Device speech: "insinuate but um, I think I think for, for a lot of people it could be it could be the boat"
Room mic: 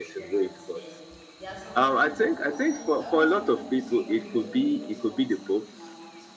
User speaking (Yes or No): Yes